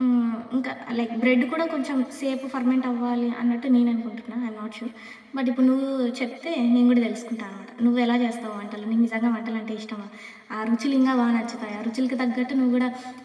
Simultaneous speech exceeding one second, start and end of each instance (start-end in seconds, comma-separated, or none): none